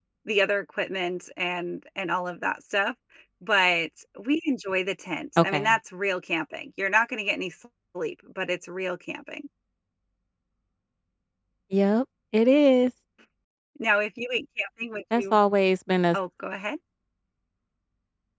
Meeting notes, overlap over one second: none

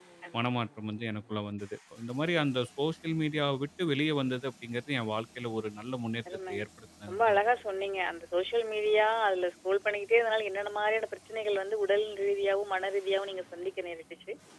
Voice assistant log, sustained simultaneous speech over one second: none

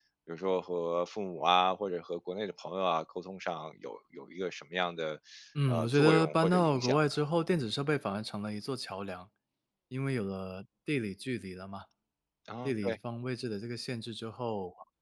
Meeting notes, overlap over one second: present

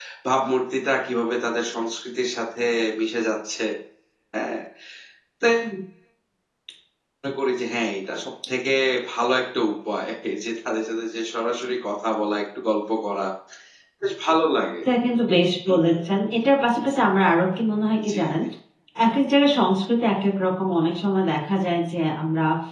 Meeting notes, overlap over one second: none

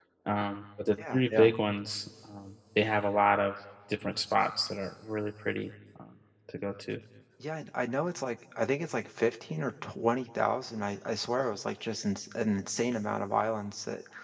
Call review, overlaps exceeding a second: none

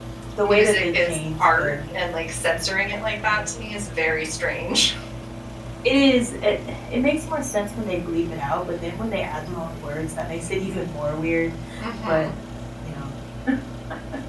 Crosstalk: present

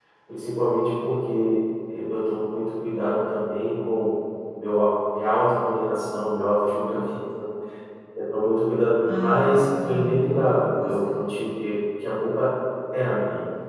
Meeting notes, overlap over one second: present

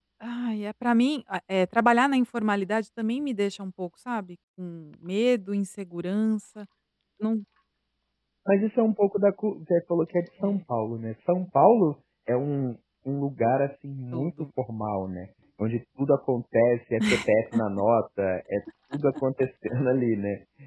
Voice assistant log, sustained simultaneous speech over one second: none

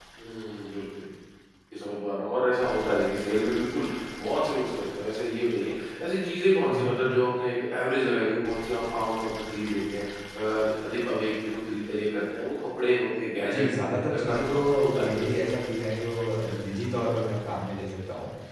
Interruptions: present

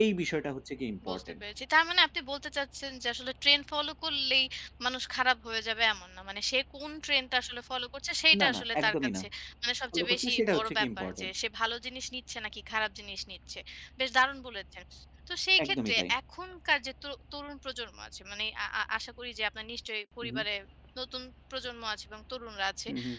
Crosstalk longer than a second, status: present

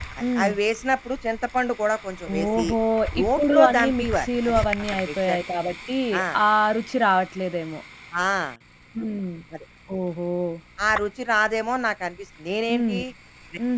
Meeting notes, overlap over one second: present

